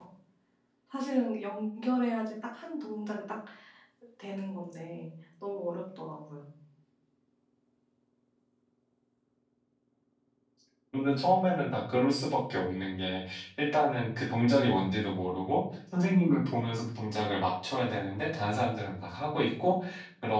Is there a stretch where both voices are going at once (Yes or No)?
No